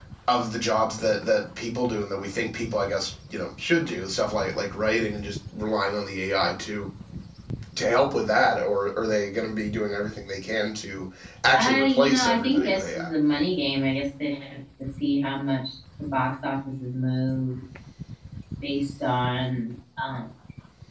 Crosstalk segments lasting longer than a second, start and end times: 11.5-12.8

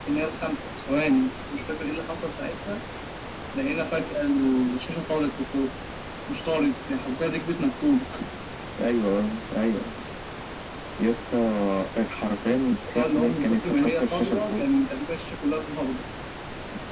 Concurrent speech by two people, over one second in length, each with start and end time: 13.0-14.6

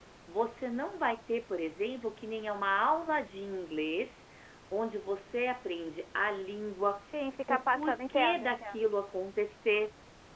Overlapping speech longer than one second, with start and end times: 7.5-8.8

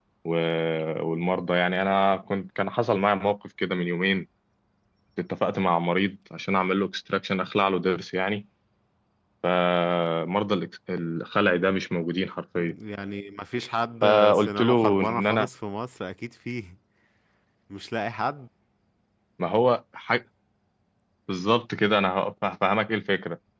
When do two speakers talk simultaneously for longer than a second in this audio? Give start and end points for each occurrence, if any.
14.0-15.5

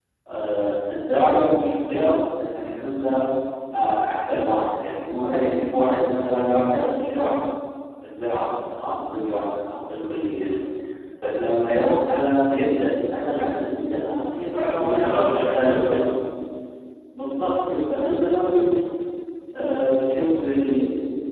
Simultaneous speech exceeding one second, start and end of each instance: 13.9-16.0

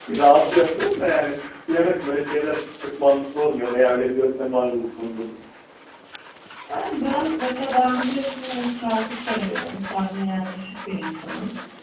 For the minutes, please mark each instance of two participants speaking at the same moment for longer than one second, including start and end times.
none

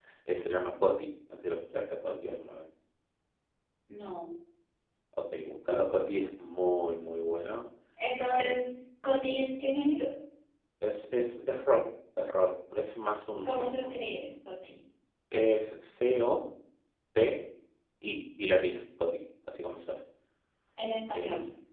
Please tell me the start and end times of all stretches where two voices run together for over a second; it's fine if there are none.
none

